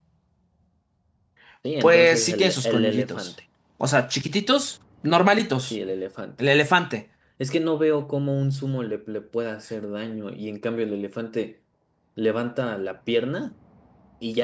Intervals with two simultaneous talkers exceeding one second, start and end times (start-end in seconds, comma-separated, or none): 1.8-3.3